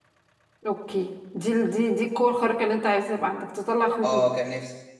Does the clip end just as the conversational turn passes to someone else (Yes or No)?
Yes